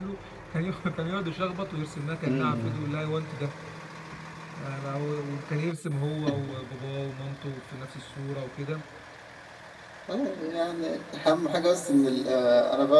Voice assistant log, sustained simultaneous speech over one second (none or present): none